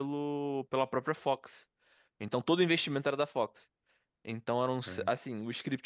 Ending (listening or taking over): listening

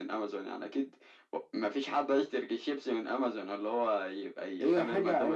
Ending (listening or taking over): taking over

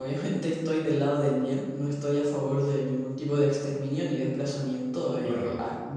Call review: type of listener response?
listening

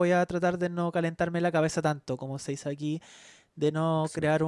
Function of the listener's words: listening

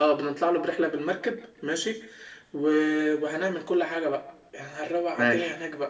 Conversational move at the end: listening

